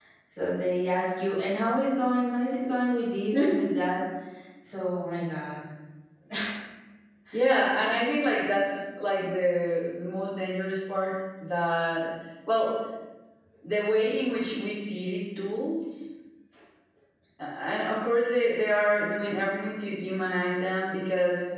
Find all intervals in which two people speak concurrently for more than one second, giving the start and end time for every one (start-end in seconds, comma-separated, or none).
none